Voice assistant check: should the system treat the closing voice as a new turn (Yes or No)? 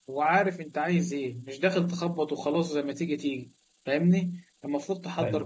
No